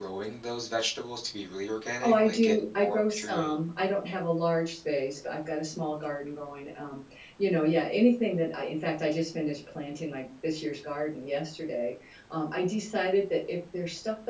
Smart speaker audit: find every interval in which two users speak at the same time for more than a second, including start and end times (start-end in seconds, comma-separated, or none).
2.0-3.5